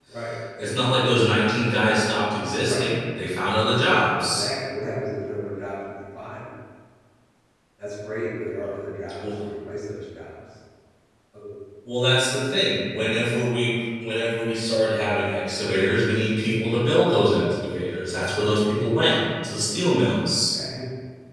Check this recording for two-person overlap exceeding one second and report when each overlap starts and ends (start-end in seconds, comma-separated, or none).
none